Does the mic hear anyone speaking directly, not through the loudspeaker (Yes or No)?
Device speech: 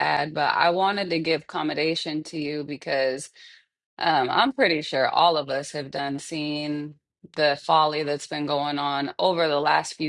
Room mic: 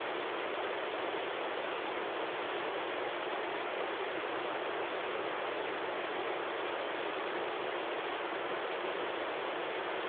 No